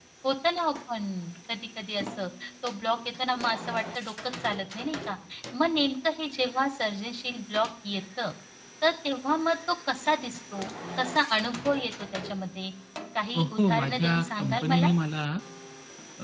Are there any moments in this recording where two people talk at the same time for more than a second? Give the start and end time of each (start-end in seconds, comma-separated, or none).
13.3-14.9